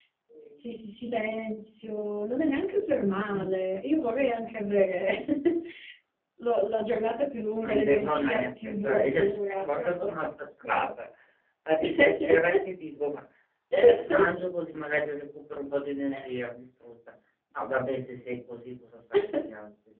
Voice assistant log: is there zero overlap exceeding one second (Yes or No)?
No